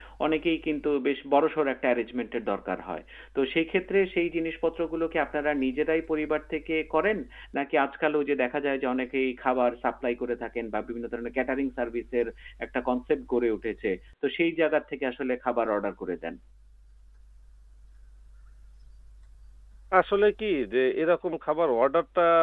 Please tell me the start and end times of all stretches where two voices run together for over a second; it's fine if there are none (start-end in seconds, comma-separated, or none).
none